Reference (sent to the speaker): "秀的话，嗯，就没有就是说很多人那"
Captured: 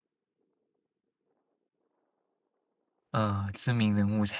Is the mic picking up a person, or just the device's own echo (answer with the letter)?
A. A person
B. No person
A